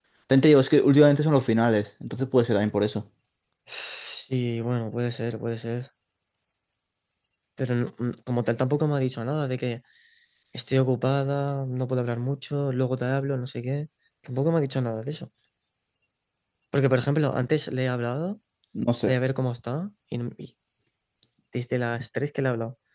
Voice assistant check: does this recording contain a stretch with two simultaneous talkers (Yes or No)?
No